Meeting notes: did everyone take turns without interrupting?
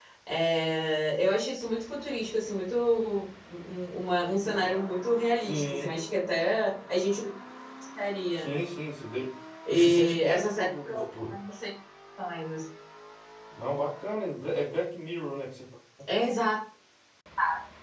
No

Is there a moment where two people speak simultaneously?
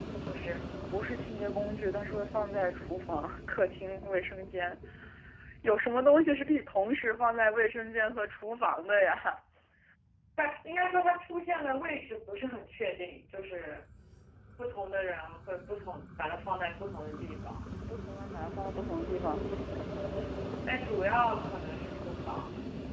No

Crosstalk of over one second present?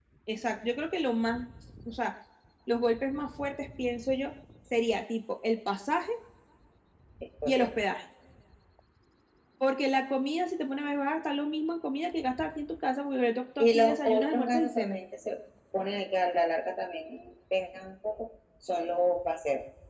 Yes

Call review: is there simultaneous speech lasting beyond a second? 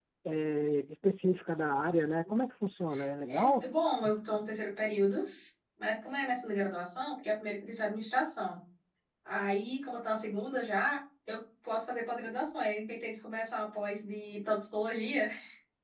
No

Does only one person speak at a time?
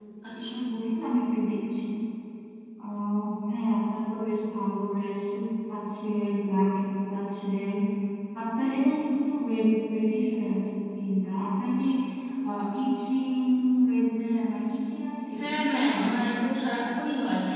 No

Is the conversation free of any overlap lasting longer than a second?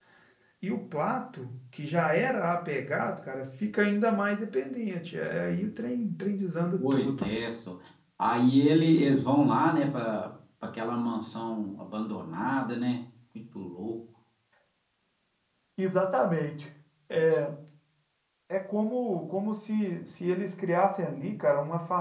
Yes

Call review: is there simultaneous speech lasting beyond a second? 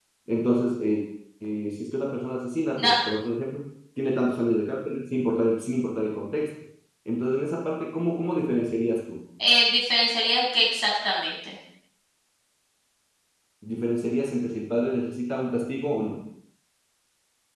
No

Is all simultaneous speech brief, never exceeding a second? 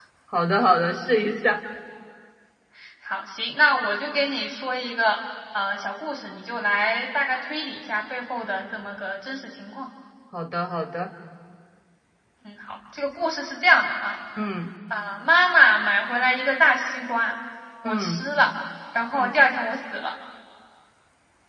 Yes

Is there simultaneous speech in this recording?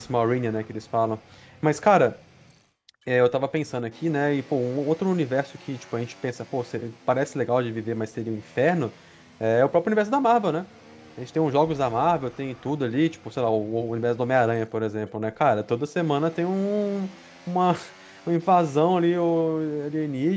No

